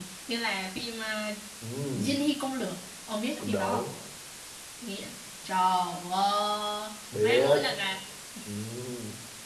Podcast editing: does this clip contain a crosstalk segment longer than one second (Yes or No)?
No